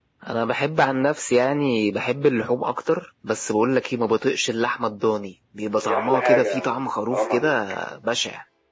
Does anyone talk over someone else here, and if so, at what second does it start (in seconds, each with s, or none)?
5.8 s